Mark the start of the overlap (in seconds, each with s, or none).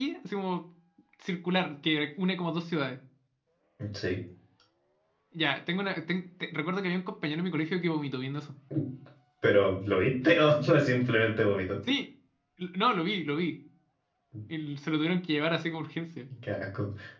none